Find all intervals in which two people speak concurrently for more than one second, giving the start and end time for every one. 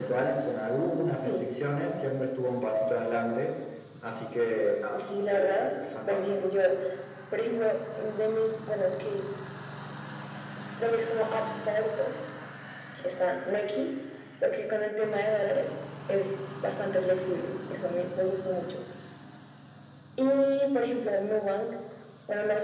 4.9-6.3

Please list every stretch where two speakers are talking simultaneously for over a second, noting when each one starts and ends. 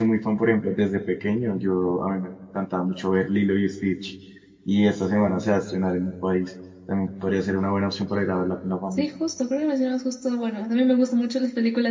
none

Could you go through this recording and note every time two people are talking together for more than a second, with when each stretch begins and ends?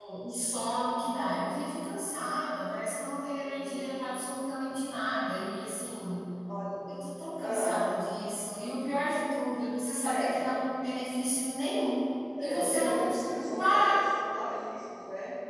12.4-14.1

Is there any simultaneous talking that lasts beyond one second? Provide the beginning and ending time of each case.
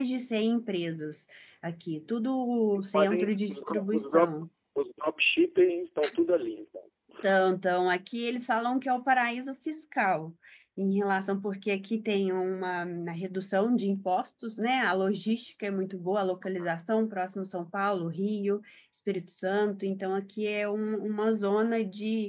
2.8-4.4

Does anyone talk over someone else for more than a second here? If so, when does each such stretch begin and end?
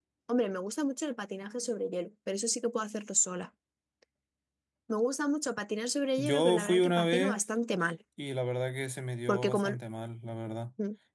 6.2-7.4

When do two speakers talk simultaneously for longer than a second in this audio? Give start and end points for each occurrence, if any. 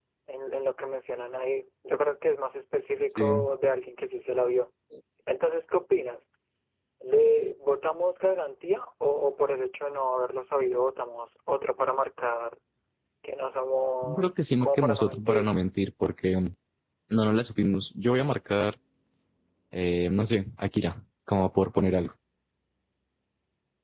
14.0-15.6

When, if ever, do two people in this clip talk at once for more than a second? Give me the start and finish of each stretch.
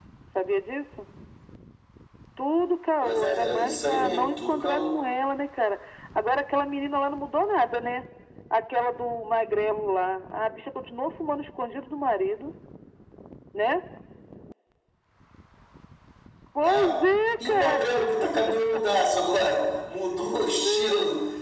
3.0-5.0

